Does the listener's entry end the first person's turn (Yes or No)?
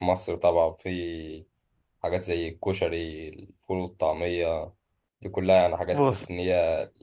No